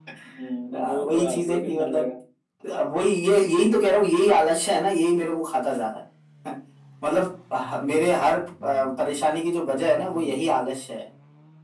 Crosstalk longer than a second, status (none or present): present